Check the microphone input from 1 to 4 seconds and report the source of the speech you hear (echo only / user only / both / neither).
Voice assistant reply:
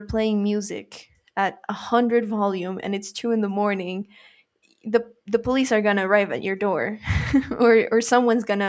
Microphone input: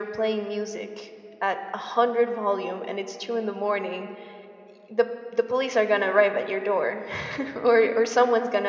echo only